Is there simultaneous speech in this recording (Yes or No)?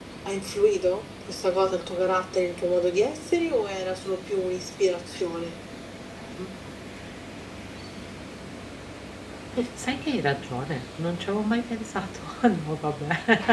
No